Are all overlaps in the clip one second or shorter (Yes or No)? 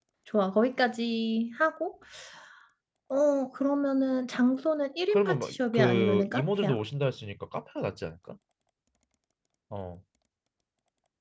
No